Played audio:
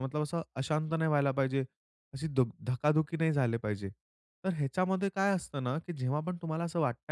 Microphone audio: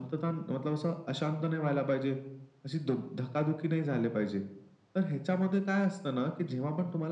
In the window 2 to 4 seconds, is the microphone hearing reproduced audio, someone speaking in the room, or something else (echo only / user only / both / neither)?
echo only